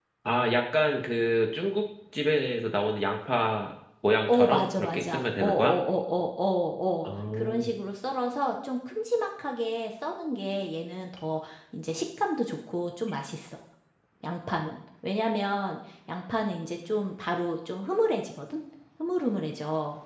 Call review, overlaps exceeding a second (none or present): present